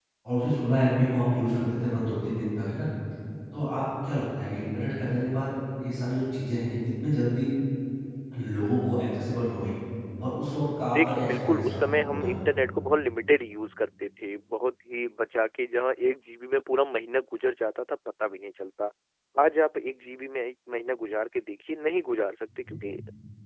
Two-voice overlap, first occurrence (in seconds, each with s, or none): 11.0 s